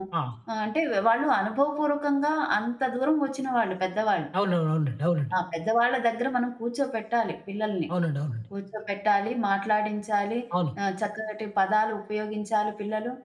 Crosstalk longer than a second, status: none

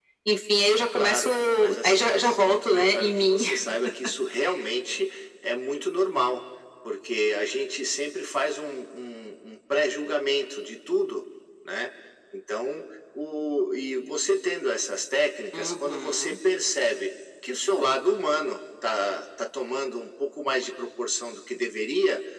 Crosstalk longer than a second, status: present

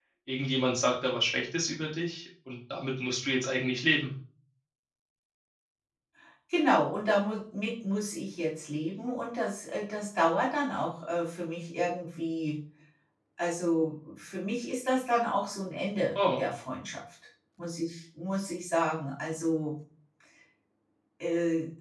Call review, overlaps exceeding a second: none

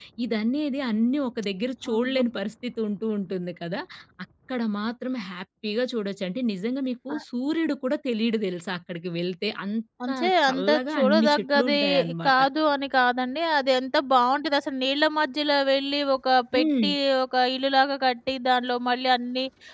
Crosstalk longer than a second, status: present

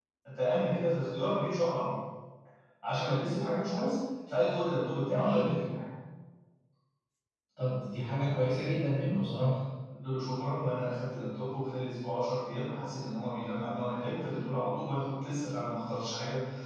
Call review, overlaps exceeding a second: none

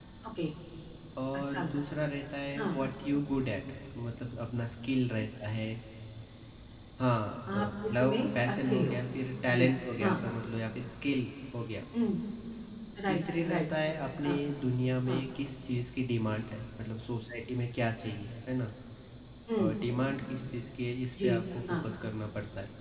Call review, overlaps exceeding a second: present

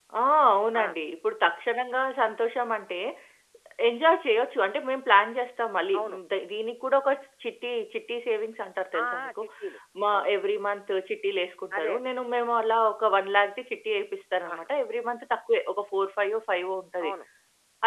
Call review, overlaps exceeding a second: none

